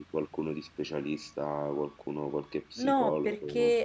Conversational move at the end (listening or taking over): taking over